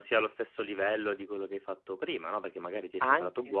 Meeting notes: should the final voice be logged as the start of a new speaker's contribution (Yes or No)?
No